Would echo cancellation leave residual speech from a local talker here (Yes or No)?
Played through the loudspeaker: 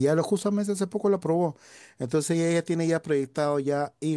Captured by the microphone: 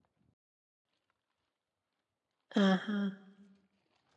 Yes